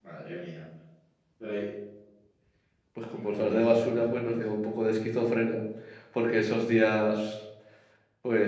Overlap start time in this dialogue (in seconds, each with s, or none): 3.1 s